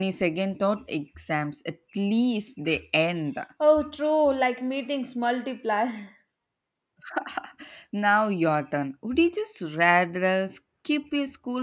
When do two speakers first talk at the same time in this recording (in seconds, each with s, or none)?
none